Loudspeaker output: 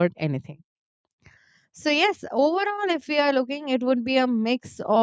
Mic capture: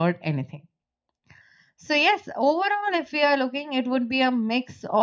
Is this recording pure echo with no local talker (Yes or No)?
Yes